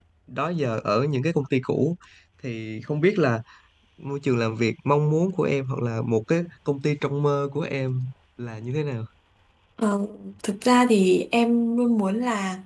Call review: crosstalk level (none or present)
none